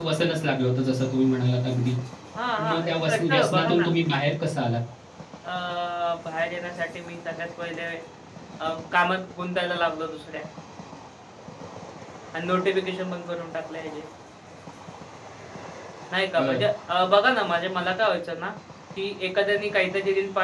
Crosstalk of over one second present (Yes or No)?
Yes